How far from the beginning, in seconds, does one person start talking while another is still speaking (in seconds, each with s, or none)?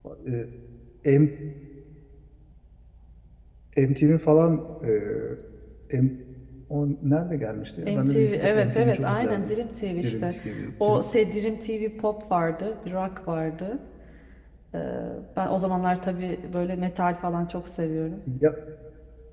7.8 s